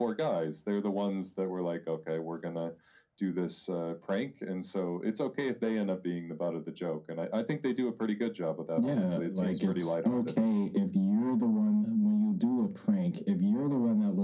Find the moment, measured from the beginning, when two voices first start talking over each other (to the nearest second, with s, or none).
9 s